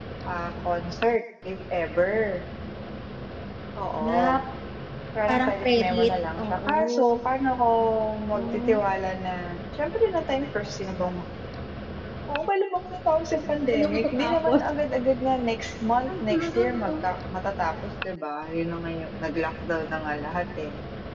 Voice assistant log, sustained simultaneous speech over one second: present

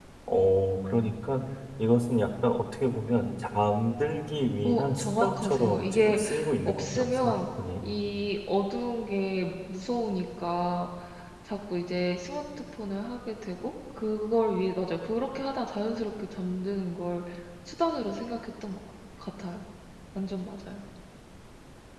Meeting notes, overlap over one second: present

